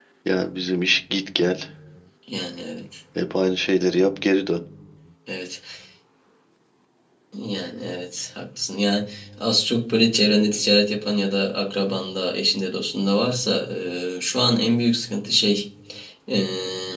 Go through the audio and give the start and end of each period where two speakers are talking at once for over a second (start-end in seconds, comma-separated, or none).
none